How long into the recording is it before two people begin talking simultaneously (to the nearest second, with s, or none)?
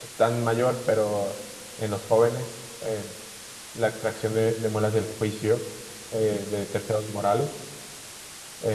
none